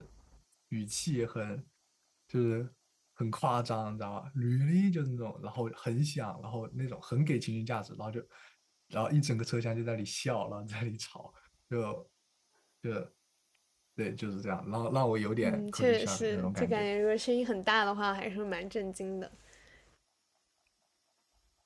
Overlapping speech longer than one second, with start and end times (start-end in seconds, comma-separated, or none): 15.4-16.9